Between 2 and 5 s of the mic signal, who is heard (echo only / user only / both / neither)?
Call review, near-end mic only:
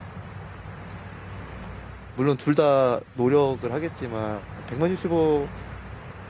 user only